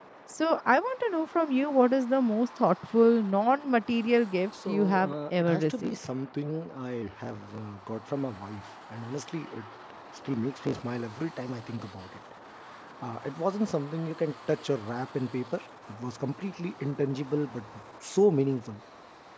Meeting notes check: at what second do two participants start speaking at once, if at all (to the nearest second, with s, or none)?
5 s